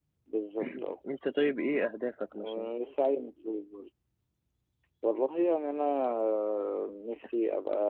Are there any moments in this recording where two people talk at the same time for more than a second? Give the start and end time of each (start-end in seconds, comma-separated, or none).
none